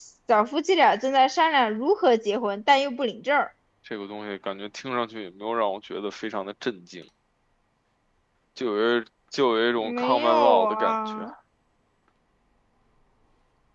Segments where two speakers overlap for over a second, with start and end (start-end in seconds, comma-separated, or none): 9.8-11.3